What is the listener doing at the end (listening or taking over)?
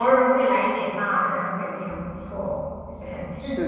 taking over